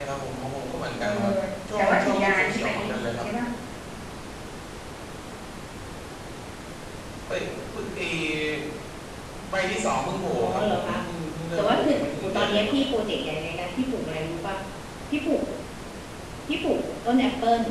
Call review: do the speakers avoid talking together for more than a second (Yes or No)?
No